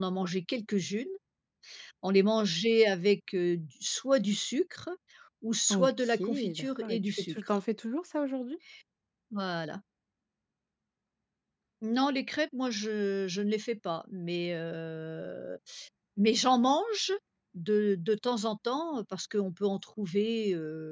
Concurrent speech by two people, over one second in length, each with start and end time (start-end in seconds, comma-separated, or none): 5.7-7.6